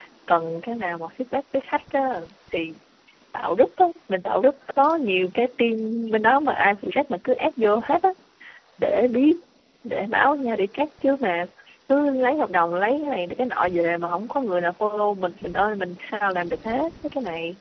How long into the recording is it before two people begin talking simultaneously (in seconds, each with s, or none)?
none